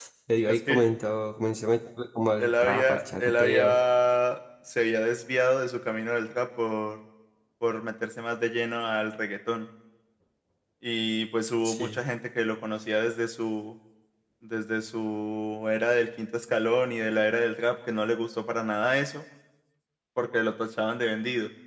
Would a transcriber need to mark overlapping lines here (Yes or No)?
Yes